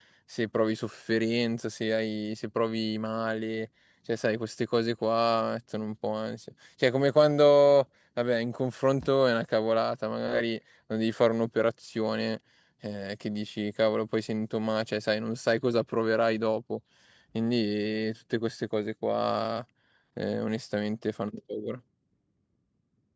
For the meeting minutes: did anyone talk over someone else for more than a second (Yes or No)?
No